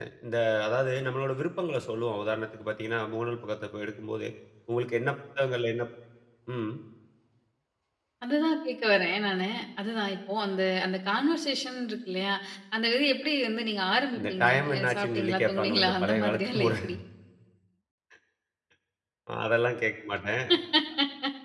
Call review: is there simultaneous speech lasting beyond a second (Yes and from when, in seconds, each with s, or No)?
Yes, from 14.2 s